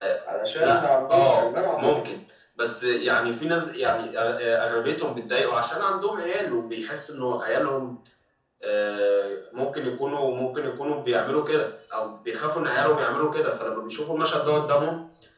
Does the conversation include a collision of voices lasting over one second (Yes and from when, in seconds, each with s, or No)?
Yes, from 0.6 s